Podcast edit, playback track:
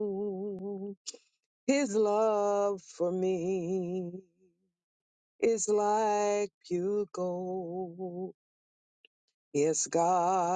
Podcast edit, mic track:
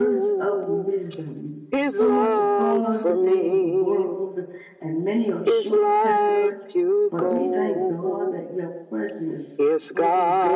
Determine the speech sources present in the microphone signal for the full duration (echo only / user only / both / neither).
both